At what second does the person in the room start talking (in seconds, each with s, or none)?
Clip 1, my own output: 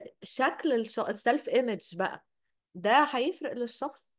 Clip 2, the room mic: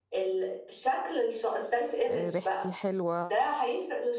2.1 s